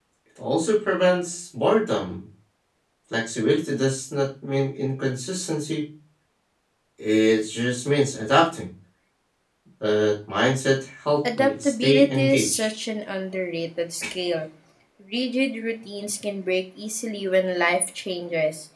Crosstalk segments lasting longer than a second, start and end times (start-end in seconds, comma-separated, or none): 11.4-12.7